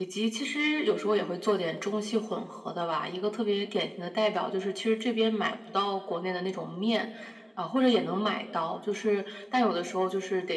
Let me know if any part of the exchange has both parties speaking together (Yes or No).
No